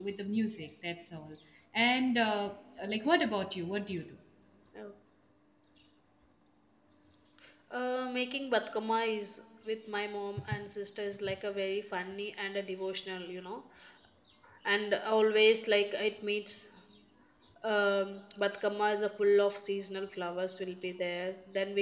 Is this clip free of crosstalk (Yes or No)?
Yes